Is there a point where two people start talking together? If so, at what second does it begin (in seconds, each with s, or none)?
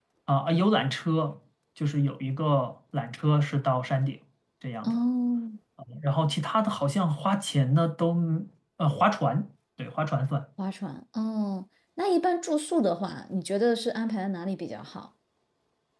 none